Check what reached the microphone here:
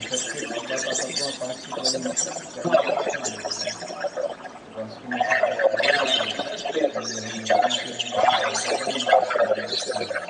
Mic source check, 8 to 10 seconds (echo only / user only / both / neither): both